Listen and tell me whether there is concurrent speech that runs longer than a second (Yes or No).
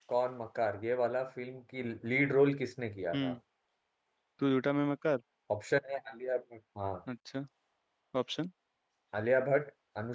No